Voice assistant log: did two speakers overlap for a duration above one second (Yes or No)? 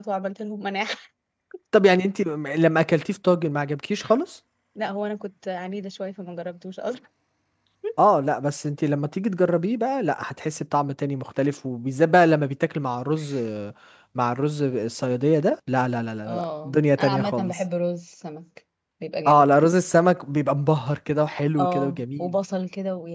Yes